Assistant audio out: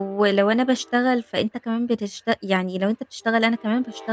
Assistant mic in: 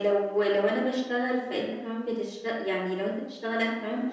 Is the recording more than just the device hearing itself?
No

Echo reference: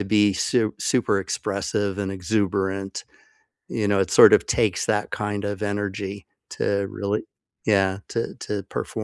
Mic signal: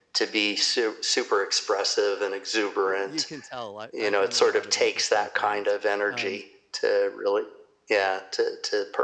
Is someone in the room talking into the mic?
Yes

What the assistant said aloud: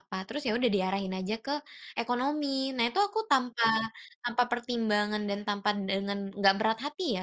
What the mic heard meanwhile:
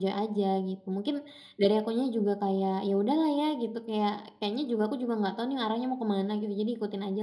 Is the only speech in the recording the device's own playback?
No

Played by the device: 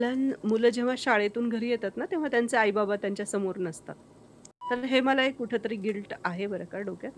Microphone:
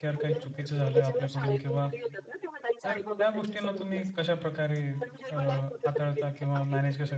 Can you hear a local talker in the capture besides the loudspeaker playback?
Yes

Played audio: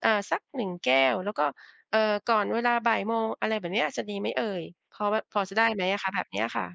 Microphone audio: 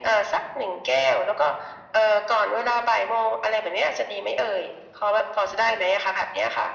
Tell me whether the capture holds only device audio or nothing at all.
Yes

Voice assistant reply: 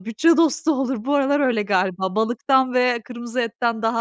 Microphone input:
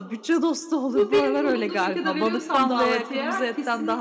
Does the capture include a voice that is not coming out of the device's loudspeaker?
Yes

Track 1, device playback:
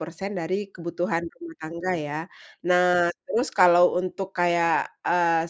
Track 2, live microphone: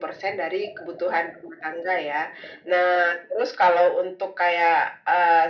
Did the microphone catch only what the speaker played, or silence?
Yes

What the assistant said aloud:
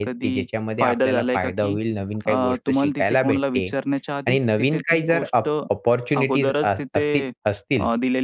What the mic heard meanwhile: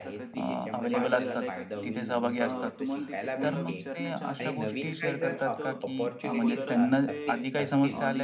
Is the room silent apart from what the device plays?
No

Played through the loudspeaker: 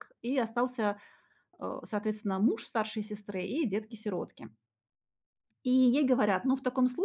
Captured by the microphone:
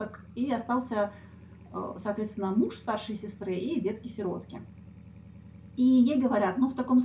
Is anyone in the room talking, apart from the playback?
No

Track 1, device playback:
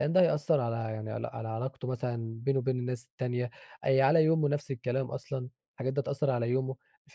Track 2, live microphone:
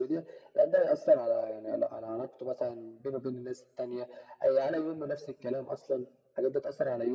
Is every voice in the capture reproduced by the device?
Yes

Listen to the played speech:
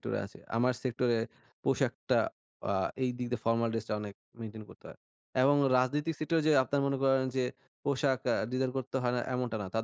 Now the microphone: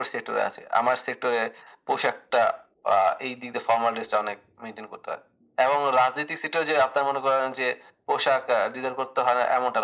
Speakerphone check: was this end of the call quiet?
Yes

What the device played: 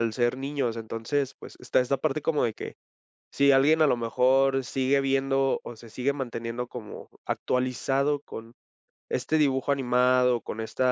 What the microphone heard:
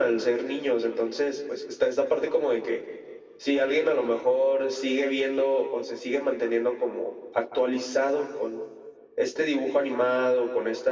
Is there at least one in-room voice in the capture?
No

